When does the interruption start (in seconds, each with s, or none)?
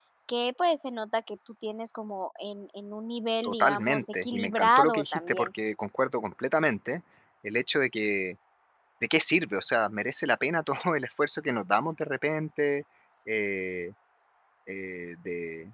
3.4 s